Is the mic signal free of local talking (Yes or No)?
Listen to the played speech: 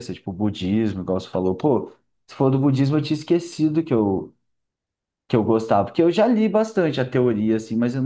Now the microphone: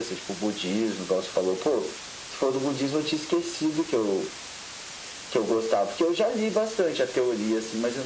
Yes